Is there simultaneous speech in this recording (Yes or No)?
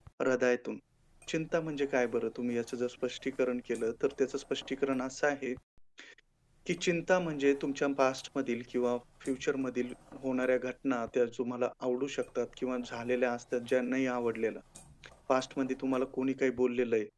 No